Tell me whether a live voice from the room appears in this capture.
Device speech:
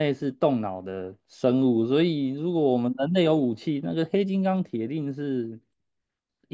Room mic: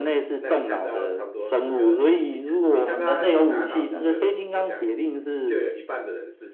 Yes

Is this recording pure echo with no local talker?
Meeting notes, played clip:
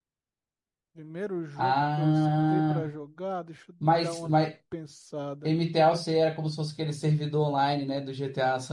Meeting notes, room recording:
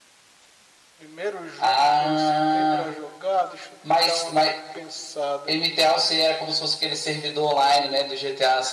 Yes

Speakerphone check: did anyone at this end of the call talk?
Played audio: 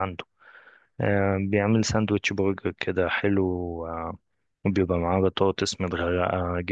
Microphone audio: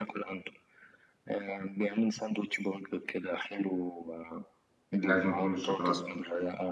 Yes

